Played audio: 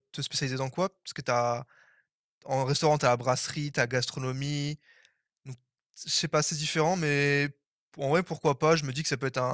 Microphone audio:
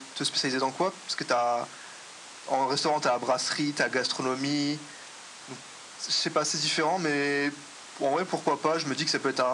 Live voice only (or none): none